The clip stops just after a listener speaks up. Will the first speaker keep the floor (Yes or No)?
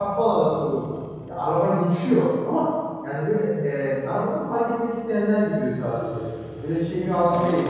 No